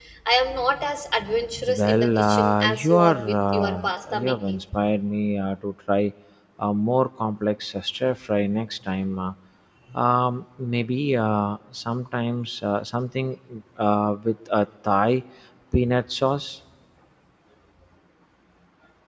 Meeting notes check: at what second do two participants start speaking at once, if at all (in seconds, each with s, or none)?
1.7 s